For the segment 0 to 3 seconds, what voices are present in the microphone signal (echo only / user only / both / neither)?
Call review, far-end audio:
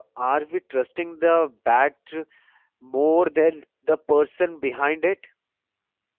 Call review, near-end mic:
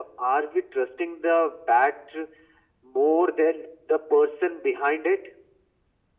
echo only